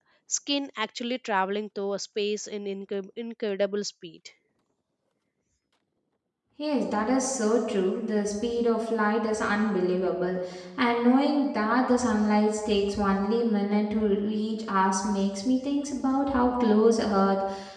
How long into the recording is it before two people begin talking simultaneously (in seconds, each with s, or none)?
none